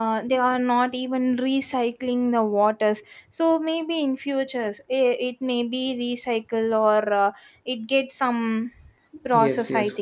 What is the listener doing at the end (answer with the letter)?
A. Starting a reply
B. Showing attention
A